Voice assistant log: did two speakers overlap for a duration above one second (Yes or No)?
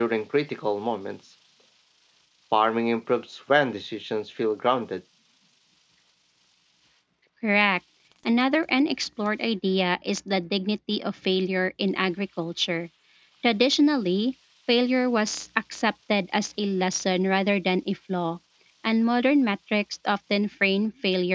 No